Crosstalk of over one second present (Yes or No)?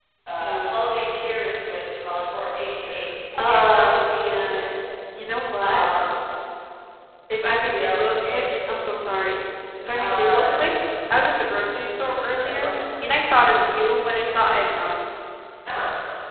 Yes